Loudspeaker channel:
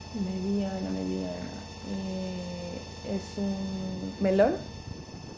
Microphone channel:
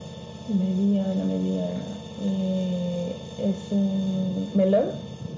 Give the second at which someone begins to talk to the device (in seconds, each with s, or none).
none